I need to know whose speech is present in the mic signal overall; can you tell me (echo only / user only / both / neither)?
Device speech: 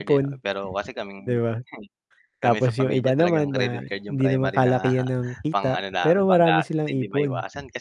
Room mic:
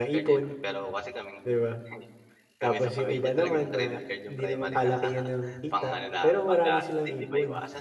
echo only